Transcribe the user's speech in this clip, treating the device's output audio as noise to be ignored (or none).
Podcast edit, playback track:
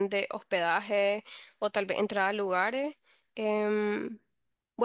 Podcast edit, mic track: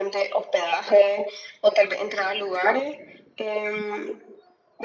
none